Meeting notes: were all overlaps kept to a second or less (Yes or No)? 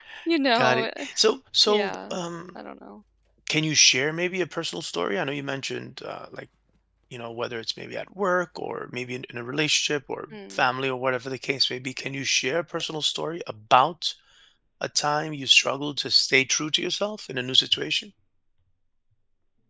Yes